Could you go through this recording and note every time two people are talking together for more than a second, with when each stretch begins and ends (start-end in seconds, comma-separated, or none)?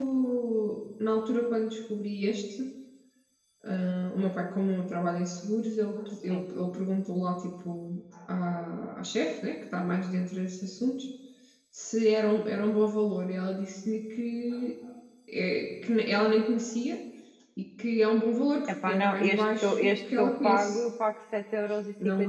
18.7-20.8